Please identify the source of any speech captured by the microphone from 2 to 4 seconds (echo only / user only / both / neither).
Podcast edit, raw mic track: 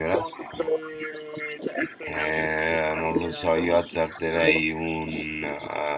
both